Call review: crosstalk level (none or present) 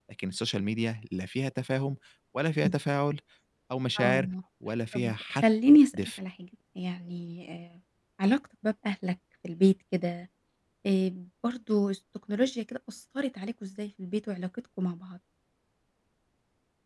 present